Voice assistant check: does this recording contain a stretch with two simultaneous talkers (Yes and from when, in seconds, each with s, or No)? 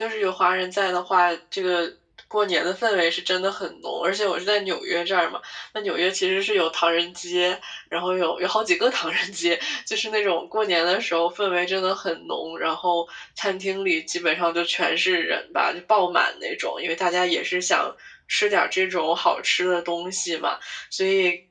No